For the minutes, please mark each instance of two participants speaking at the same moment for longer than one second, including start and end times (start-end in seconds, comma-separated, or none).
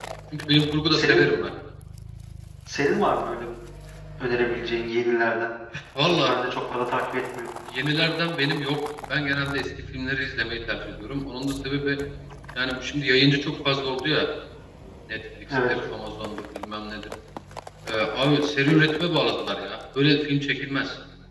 none